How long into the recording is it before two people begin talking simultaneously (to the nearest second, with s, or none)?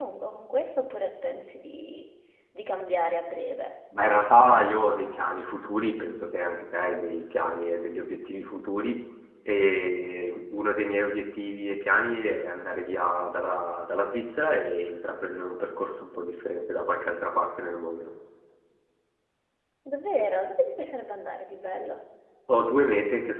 none